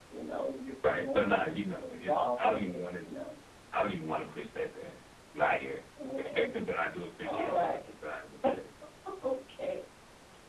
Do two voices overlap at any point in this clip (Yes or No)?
Yes